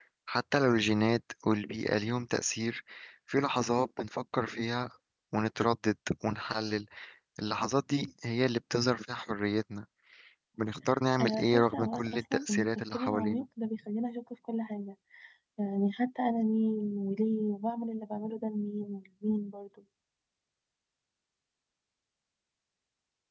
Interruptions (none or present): present